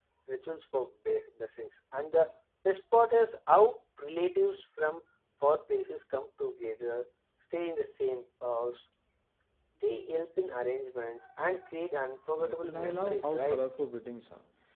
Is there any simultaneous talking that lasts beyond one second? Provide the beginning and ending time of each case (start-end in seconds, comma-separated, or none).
12.4-13.6